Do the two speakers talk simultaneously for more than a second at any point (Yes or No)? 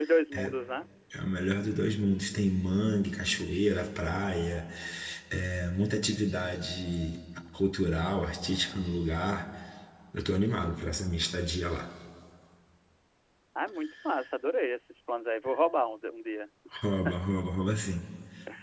No